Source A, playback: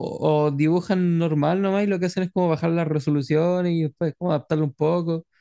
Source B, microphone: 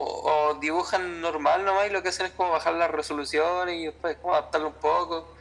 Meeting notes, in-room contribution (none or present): none